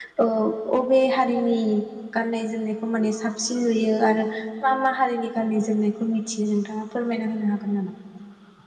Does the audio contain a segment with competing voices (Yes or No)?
No